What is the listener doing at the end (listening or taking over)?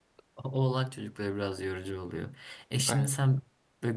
listening